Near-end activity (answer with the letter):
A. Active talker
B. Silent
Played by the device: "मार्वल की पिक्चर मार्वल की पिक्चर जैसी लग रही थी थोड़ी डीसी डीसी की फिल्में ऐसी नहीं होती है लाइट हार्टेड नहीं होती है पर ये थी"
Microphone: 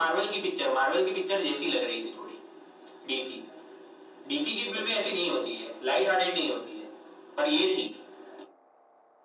B